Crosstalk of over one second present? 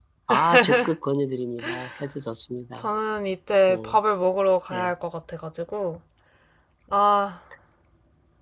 No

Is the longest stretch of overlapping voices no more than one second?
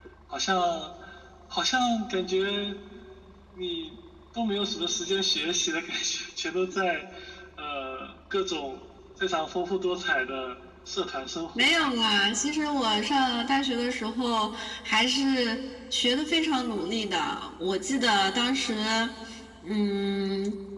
Yes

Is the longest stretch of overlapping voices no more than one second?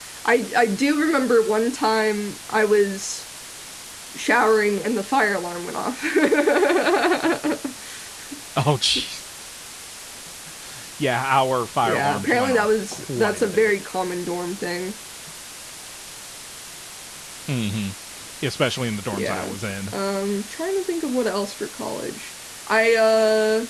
No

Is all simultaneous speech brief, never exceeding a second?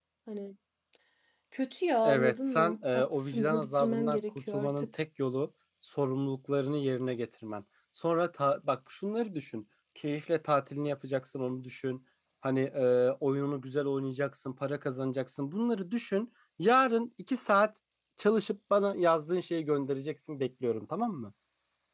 No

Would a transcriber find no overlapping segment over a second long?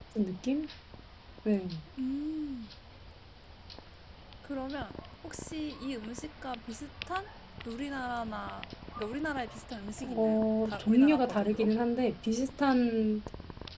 No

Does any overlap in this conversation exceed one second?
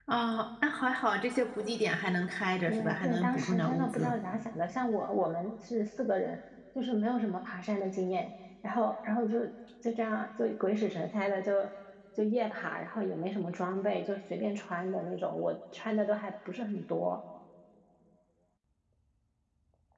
Yes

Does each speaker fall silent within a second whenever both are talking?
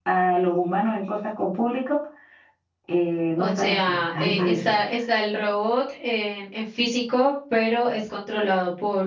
No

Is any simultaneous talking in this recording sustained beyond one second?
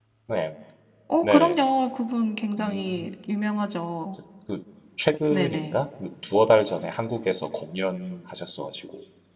No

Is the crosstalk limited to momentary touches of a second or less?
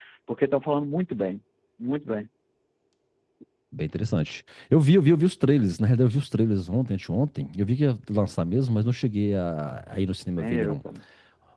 Yes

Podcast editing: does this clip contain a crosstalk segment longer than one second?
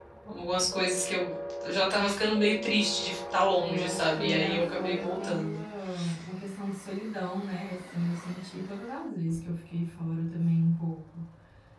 Yes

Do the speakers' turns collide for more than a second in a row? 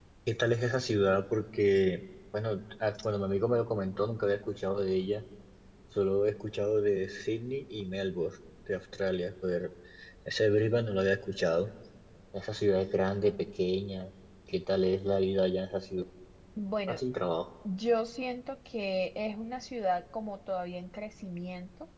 No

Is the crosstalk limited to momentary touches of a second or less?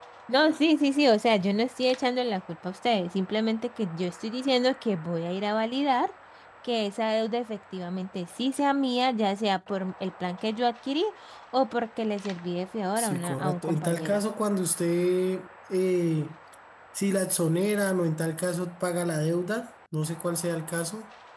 No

